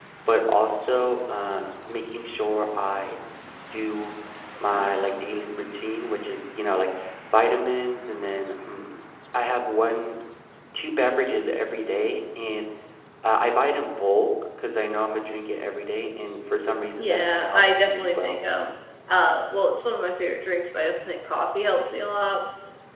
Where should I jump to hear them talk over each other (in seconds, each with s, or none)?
17.0 s